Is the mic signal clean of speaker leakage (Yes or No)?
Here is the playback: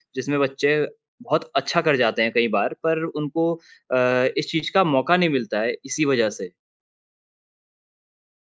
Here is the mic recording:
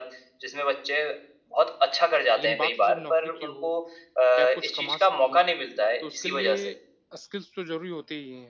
No